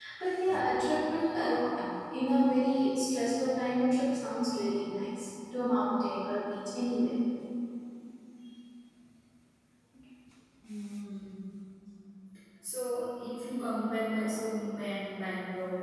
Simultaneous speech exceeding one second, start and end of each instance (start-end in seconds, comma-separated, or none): none